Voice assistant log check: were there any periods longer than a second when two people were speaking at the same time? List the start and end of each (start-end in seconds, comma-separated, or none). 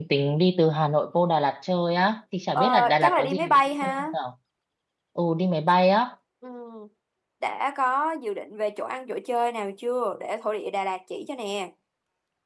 2.5-4.1